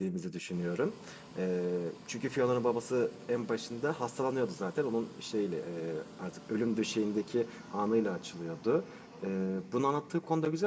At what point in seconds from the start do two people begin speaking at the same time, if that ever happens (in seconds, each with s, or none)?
none